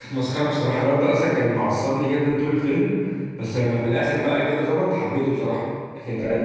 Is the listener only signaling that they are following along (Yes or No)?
Yes